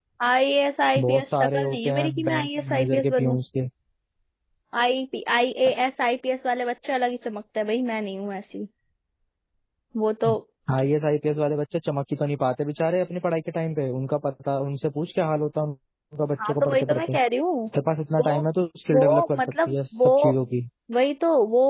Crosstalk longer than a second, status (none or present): present